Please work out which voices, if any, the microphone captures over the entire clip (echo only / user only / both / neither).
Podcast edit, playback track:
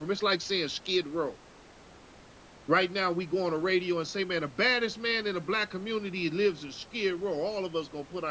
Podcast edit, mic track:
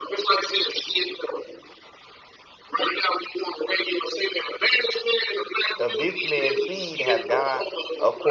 both